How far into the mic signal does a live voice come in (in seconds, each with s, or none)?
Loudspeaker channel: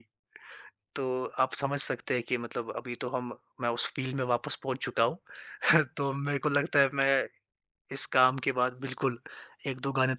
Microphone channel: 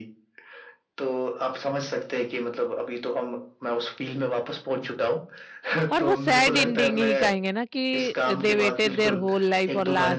5.9 s